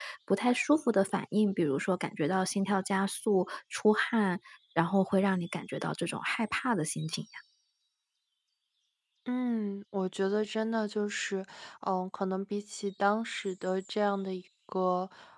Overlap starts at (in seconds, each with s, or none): none